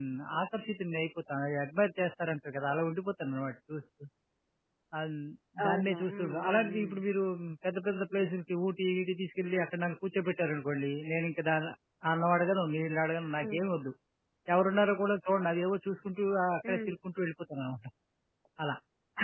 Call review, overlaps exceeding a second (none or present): present